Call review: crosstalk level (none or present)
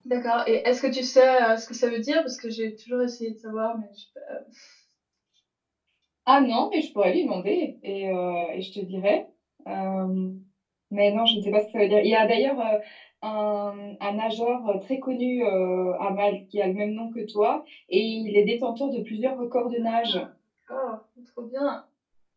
none